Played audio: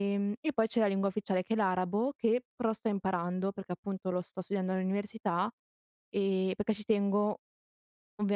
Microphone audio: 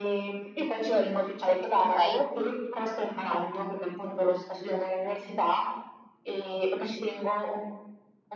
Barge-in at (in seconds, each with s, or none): 1.8 s